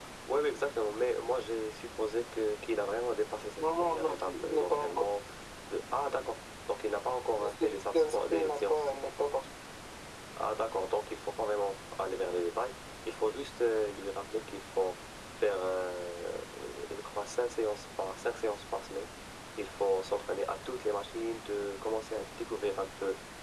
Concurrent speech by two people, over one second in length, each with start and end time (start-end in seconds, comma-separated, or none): 3.6-5.0, 7.4-8.9